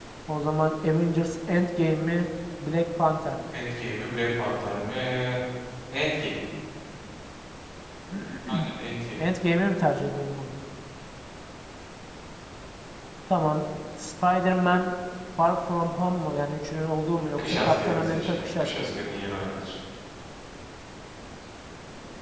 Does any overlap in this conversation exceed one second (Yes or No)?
Yes